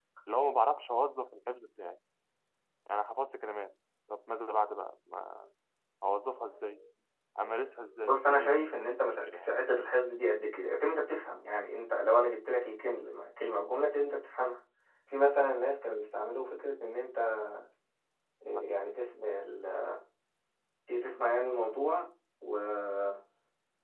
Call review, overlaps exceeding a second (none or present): present